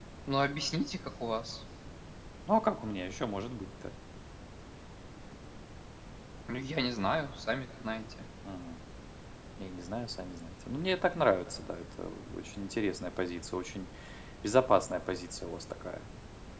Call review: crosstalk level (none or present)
none